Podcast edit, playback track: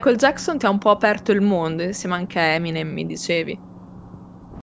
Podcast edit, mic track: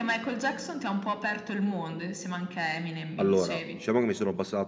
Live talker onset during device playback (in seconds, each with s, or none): 3.2 s